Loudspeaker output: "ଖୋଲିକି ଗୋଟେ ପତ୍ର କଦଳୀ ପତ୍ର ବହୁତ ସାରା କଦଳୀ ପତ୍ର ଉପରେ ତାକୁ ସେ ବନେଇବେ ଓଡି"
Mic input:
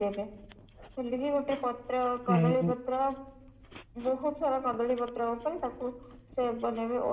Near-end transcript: ଓ ହଁ

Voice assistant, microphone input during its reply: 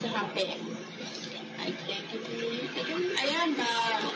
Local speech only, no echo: none

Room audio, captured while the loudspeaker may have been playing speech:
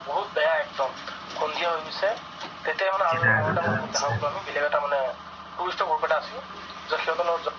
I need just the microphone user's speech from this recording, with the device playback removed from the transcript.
কোৰনাথ আচ্ছা,

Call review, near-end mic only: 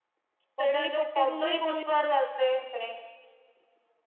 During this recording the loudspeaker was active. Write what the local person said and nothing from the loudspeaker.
କଦଳୀ ପଟୁଆରୁ ନା କଣ

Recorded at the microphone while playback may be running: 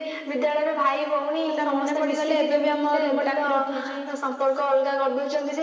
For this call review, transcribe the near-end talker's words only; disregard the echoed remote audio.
ସେଟା ମନେ ପଡିଗଲେ ଏବେ ବି ଆମ ରୁମ ଟାଙ୍କୁରି ଉଠିଛି।

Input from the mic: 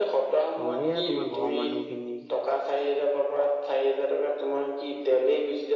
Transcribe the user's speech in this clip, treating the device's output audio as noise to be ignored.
অ', এয়া তোমাৰ ঘৰৰ মানুহ খিনি

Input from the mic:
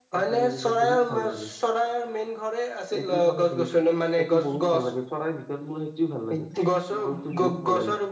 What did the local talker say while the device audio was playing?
none

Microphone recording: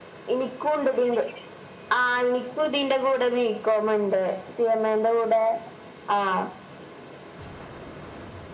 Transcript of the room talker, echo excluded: none

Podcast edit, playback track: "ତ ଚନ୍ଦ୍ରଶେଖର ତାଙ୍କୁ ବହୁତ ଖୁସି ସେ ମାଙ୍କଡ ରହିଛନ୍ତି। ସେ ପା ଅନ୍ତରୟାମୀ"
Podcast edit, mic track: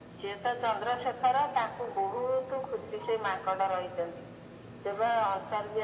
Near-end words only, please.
none

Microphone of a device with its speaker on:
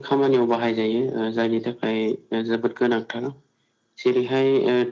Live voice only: none

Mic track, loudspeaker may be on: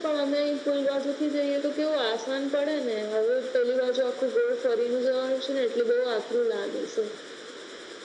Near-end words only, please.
none

